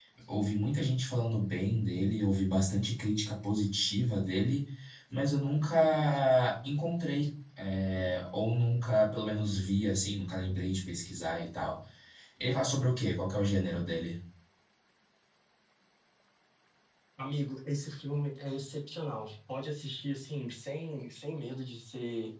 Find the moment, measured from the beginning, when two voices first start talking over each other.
none

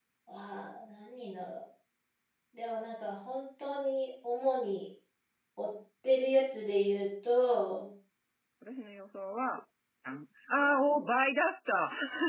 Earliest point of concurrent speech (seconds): none

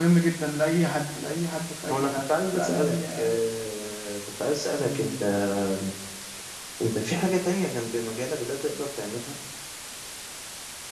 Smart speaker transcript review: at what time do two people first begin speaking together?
1.9 s

